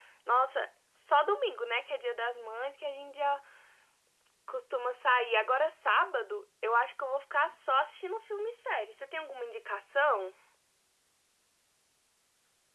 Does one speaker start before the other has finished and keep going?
No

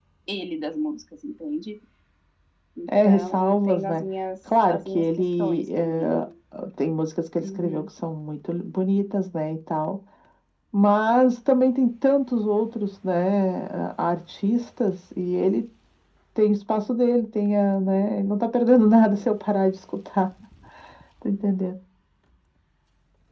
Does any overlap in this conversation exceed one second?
Yes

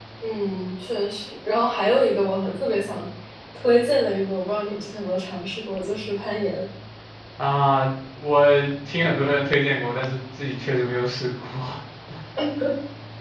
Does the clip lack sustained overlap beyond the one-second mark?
Yes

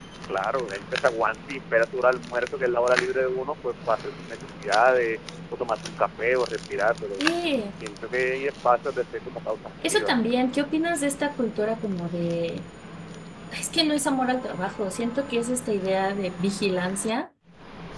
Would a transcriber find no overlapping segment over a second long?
Yes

